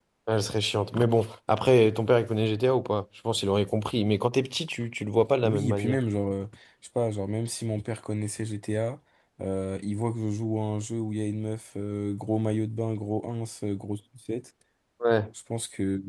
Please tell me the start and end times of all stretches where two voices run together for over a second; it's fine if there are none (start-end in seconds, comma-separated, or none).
none